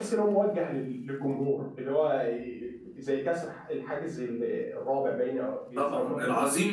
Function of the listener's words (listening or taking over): taking over